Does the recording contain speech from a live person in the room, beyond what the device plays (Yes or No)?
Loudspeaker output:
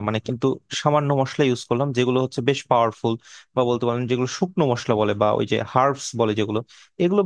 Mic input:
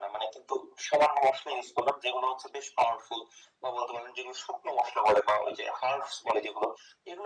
No